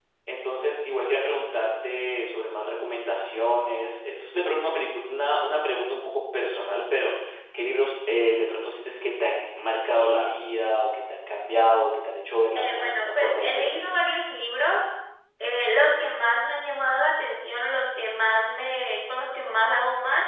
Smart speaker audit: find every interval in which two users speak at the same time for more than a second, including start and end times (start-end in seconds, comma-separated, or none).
12.6-13.8